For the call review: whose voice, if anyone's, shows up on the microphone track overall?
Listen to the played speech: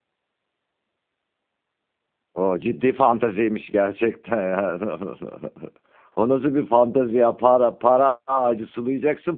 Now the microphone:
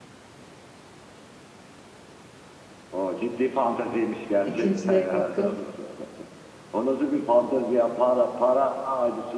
both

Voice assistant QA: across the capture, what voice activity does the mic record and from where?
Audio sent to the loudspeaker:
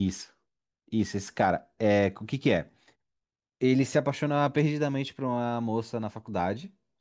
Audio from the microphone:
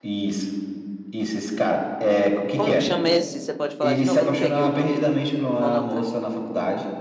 both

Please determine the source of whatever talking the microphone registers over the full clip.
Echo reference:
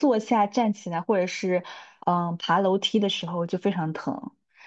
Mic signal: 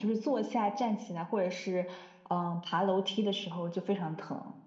echo only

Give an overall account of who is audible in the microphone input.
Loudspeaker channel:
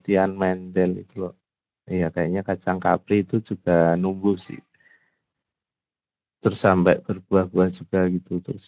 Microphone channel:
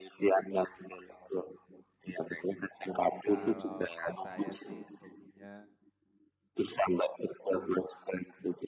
both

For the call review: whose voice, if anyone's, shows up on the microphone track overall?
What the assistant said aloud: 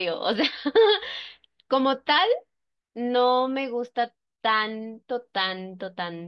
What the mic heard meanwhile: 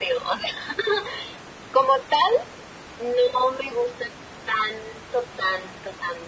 echo only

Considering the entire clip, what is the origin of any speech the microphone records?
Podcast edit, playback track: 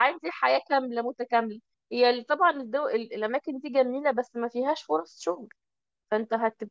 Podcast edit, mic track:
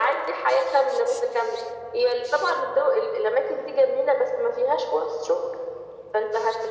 echo only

